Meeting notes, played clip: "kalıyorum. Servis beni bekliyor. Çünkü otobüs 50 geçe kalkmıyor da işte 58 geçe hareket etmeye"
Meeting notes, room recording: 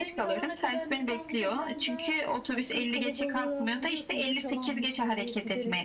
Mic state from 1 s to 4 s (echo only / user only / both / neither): both